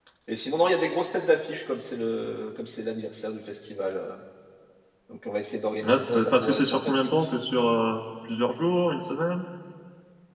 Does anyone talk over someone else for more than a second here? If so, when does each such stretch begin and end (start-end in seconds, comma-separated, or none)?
5.8-7.1